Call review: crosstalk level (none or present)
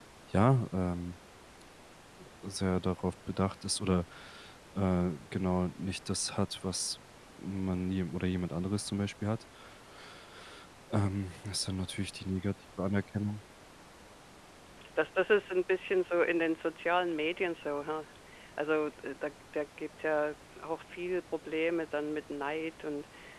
none